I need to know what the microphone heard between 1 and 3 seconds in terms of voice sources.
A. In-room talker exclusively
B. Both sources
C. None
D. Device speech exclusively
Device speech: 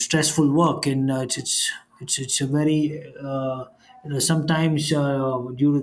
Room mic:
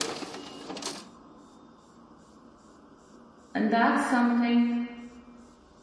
C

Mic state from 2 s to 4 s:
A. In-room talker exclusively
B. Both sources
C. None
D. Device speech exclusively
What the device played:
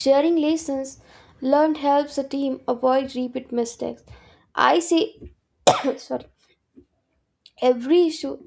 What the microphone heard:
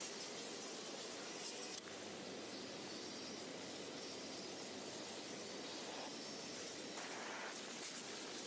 C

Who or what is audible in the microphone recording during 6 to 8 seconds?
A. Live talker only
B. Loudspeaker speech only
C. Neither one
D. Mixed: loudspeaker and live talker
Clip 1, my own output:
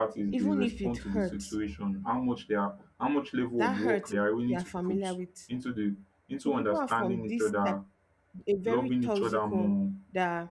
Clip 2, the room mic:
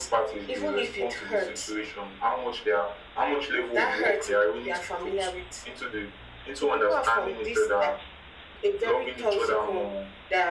B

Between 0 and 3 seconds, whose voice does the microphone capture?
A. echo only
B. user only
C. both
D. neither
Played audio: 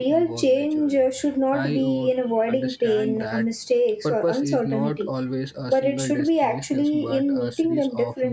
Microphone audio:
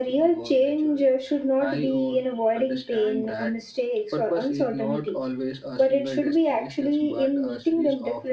A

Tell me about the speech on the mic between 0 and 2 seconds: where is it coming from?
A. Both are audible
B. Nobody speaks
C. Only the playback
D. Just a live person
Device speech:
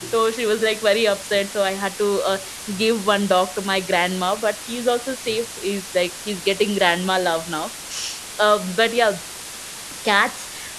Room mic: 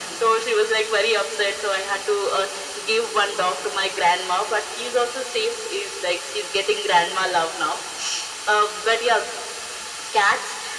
C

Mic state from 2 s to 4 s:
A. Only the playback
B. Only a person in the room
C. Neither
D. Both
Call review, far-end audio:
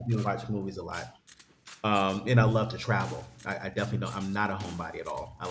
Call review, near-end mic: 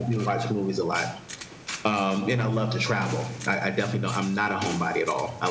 A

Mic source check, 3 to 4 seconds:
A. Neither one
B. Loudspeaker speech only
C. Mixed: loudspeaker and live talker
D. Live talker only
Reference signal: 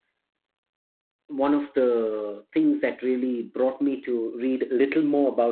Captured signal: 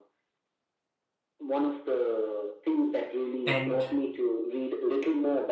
C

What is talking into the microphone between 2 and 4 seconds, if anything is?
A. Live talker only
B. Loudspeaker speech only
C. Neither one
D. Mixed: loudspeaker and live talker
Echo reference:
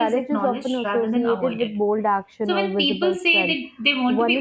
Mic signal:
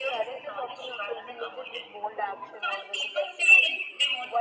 B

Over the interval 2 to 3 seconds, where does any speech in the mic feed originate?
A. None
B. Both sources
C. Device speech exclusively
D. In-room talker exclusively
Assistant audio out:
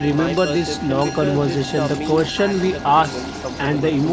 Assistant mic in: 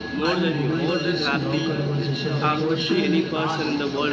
B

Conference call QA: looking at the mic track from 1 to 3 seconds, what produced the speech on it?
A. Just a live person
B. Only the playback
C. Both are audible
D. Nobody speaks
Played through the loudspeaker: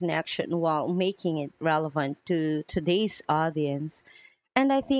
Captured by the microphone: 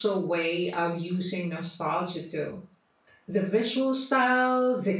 A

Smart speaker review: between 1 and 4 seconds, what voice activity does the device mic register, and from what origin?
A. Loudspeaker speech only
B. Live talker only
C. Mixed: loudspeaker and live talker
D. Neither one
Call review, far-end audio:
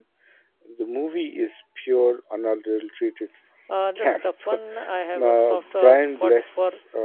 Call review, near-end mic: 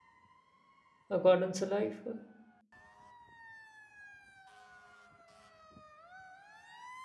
B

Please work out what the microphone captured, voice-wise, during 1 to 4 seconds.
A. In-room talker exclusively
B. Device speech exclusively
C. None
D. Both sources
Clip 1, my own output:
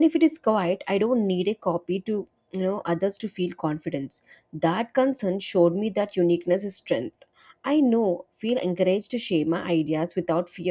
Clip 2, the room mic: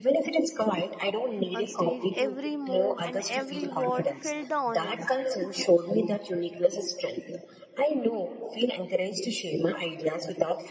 D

